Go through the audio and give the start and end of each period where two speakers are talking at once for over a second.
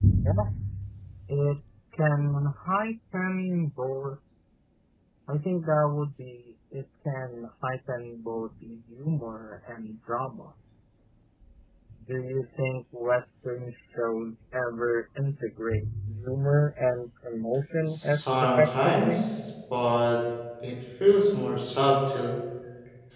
17.9-19.2

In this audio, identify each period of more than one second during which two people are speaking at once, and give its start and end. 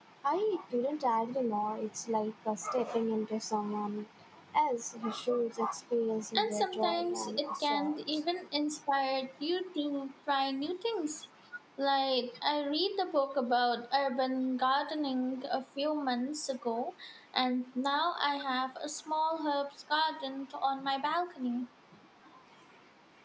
6.3-8.0

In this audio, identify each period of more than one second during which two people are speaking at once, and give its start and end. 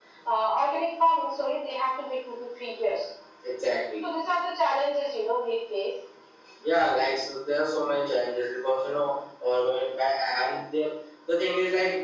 none

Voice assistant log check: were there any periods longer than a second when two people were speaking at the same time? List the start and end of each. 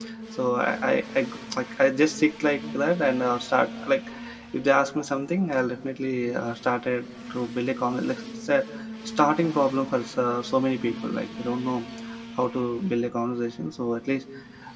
none

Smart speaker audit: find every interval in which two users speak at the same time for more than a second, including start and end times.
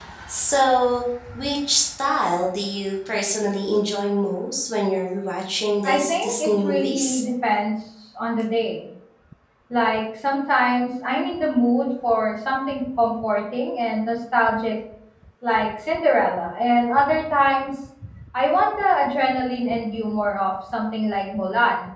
5.8-7.2

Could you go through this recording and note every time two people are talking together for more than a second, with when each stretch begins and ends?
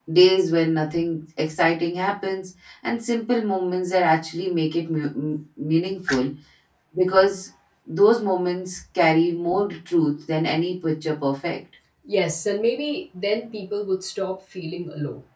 none

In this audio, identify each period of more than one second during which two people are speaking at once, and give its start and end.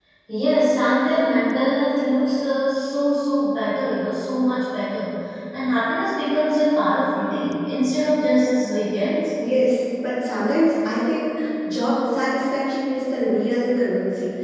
none

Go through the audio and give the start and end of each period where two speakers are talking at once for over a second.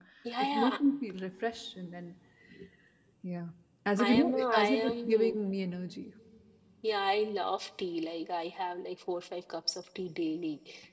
4.0-5.3

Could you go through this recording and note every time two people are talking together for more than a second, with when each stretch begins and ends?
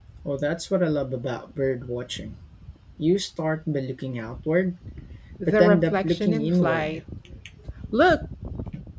5.5-7.0

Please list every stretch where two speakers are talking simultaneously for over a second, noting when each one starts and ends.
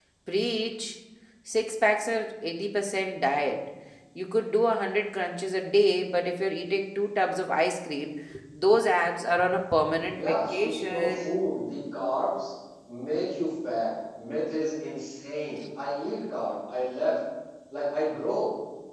10.2-11.4

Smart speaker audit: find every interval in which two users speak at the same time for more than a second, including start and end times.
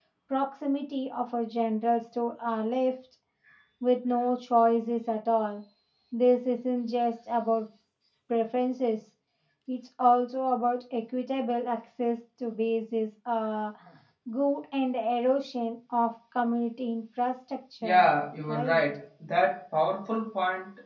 none

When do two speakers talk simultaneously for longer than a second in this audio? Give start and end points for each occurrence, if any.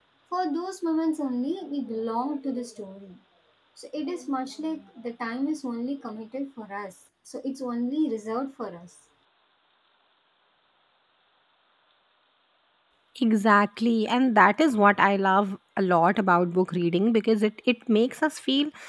none

